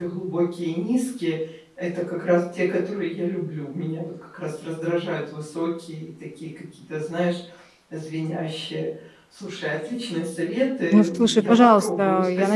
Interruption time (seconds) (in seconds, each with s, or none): 10.9 s